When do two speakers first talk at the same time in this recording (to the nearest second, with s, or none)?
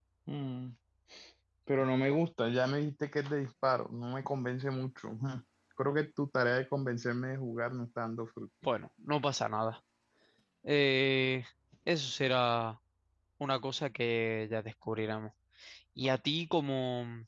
none